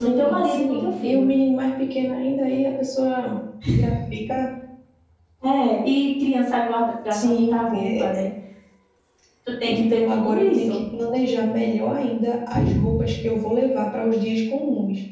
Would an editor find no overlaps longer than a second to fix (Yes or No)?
No